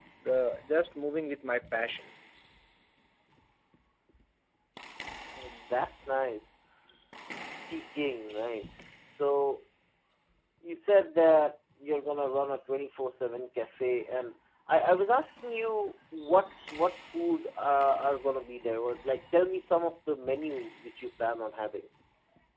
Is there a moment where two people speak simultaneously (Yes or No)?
No